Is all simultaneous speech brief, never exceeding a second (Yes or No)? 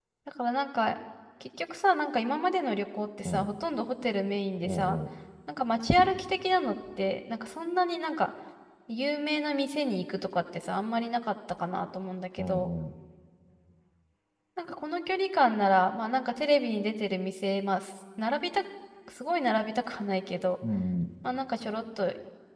Yes